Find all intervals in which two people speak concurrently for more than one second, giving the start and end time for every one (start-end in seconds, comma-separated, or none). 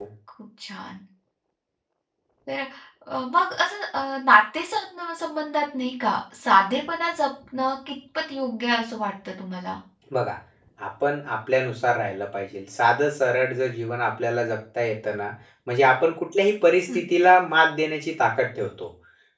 none